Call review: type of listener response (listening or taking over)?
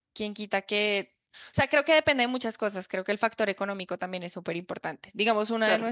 listening